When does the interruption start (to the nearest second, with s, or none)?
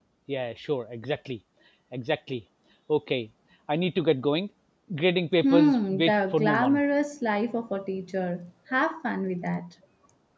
5 s